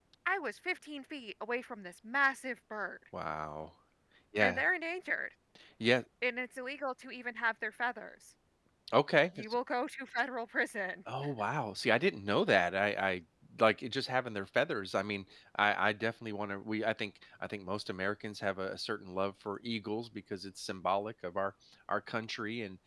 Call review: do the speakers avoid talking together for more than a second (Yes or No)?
Yes